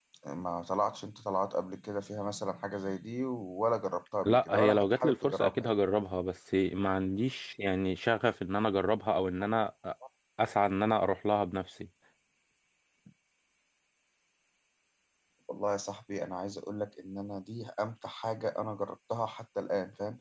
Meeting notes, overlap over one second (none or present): present